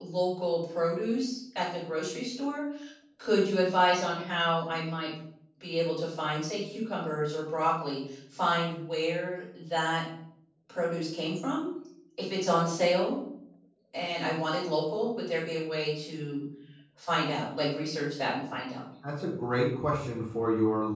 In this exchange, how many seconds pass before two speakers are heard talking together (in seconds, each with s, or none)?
none